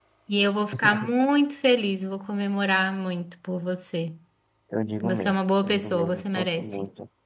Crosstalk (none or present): present